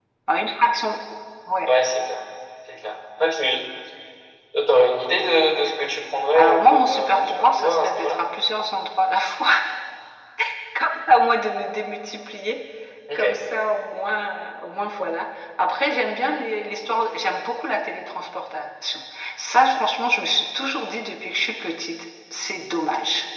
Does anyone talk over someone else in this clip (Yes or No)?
Yes